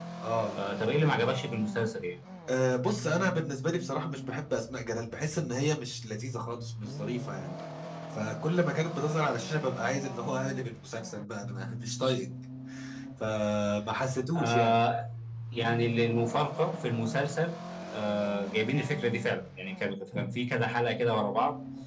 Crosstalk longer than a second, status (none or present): none